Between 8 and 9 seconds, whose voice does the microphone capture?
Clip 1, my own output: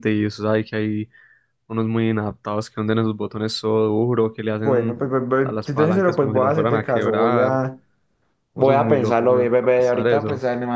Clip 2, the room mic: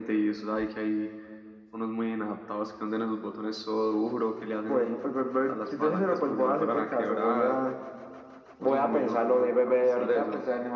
echo only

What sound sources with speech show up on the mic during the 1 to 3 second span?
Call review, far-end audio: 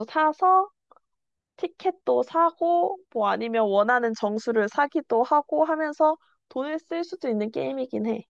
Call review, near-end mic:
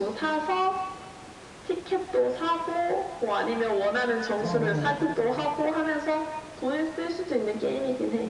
echo only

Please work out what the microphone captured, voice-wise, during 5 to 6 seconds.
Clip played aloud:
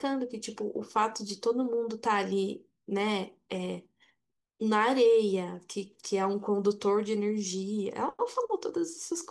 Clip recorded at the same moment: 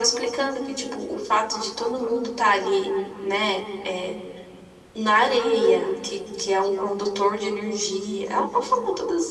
echo only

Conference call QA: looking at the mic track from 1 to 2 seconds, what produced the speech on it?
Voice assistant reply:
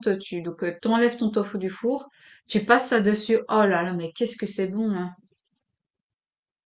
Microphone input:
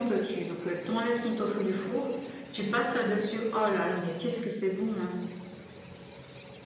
echo only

